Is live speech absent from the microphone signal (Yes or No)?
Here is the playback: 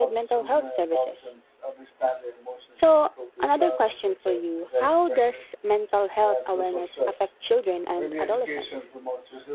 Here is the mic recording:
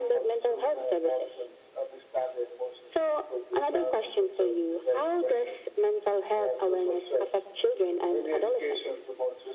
Yes